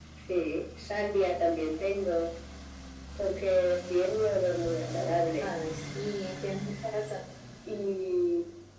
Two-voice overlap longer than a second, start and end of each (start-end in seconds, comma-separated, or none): none